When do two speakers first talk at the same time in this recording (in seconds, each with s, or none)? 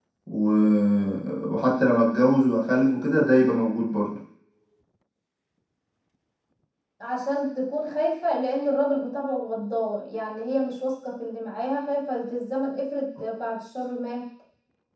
none